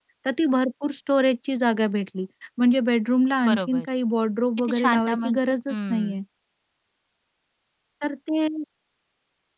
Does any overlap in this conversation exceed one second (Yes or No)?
Yes